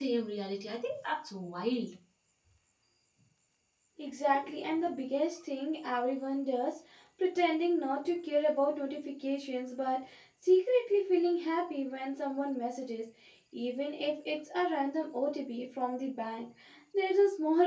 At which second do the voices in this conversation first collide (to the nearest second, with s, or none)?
none